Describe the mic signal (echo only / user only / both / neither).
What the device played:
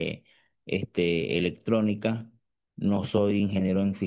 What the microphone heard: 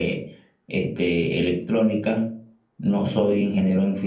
echo only